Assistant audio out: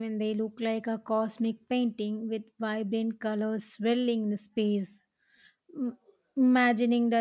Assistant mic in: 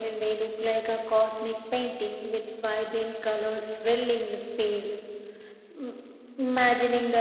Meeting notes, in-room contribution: none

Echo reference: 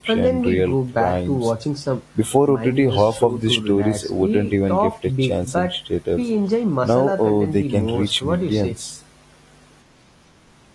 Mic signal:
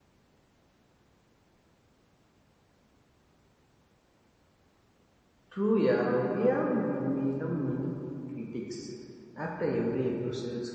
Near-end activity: present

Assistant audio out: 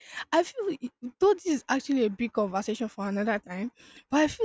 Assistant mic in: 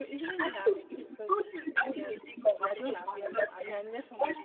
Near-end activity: present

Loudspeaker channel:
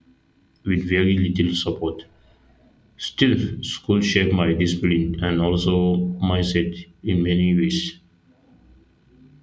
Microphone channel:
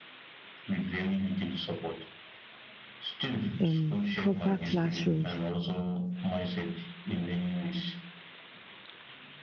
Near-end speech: present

